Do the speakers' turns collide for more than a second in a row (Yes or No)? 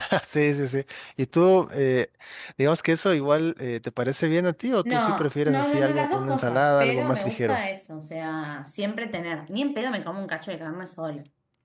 Yes